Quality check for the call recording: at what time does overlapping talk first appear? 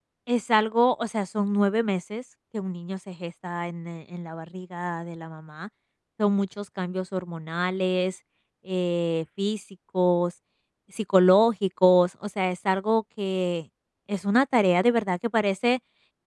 none

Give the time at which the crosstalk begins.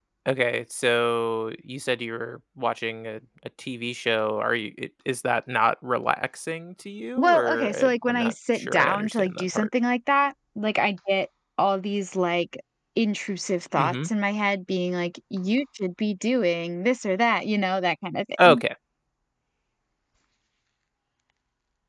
7 s

